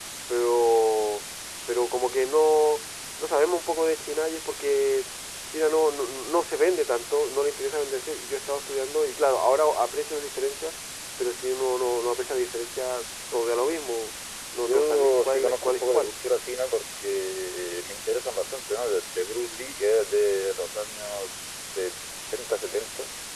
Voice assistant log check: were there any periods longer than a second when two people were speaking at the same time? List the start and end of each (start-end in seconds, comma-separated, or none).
14.6-16.1